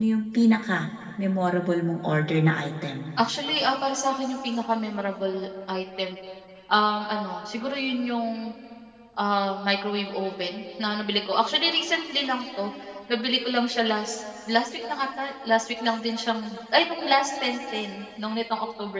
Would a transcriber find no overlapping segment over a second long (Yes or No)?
Yes